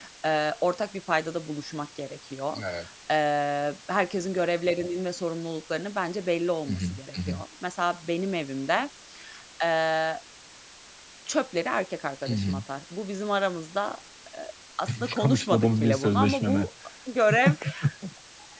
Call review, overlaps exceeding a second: present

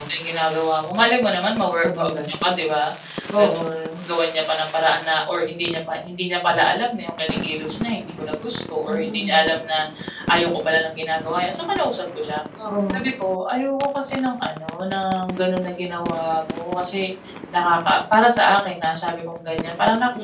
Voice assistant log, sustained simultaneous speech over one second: none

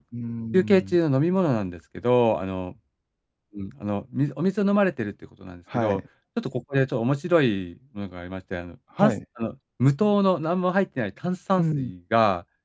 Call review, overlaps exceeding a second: none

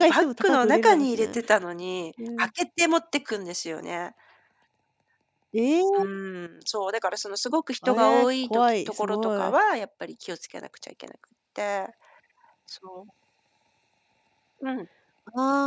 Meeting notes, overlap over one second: present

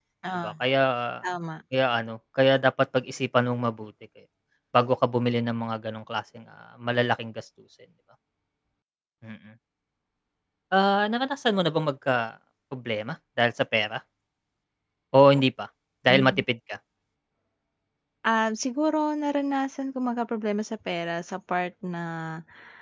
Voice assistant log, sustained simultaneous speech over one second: none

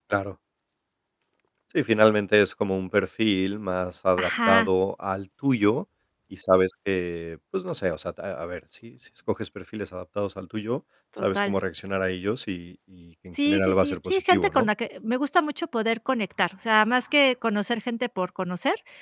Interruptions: present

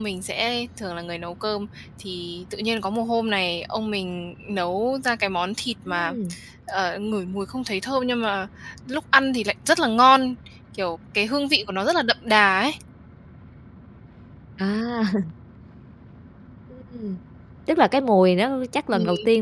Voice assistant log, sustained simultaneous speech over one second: none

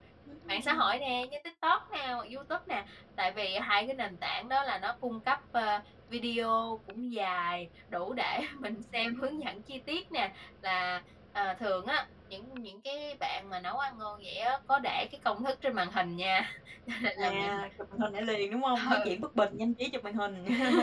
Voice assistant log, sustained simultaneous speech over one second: none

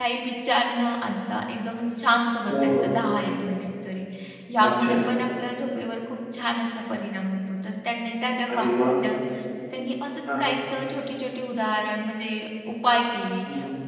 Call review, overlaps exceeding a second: none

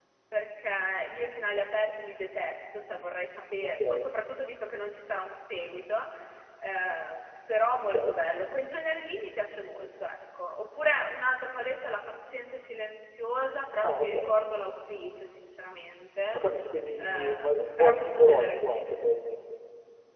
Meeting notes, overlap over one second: present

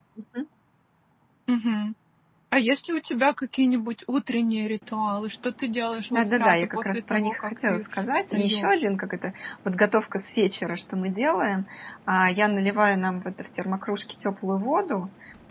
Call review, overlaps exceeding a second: present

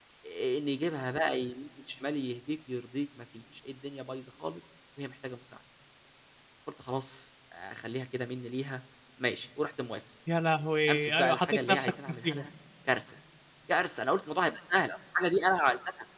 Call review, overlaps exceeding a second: present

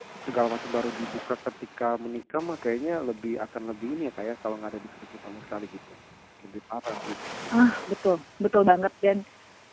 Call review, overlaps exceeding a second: none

